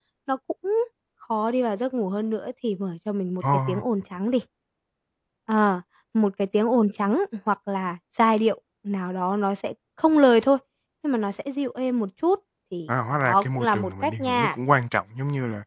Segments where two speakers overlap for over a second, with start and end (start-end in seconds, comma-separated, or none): 12.9-14.6